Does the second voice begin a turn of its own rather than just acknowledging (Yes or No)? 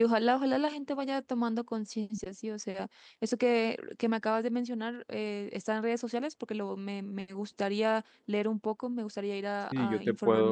Yes